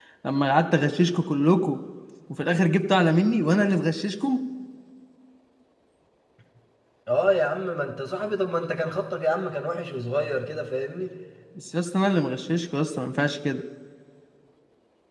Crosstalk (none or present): none